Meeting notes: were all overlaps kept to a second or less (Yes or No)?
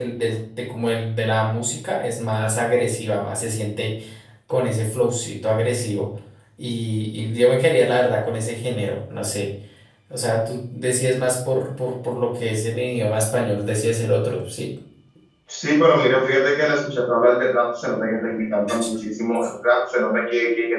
Yes